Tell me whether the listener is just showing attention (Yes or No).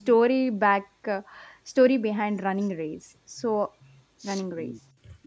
No